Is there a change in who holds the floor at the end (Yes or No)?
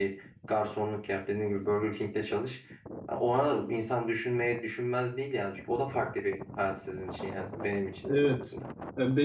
Yes